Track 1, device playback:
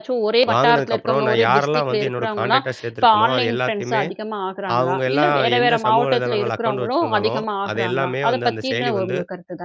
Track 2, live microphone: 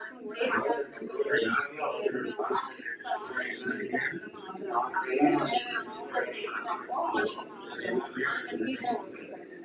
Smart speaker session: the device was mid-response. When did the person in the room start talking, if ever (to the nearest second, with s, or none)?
none